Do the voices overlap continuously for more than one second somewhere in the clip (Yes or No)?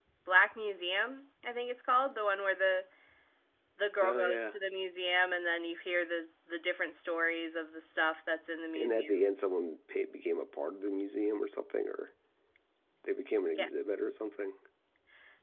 No